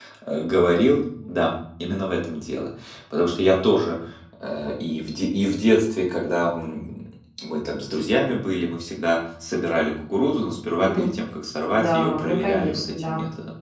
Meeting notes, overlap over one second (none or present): present